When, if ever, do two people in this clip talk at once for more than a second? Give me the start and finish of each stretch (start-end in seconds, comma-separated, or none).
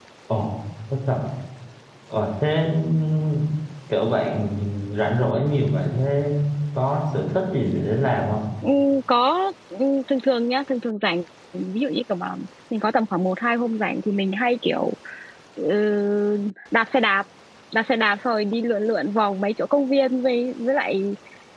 none